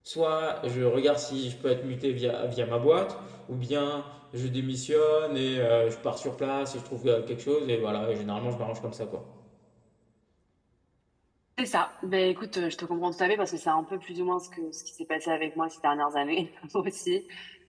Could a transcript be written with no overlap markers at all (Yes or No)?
Yes